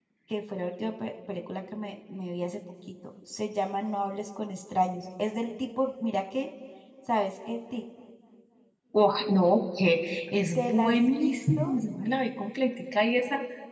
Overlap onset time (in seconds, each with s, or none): 10.6 s